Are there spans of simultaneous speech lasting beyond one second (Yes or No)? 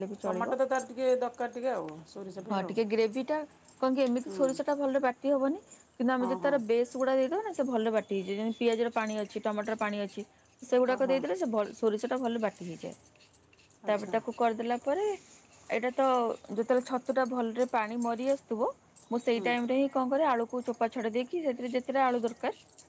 No